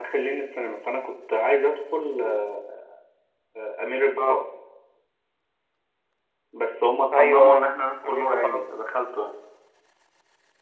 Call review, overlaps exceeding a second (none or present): present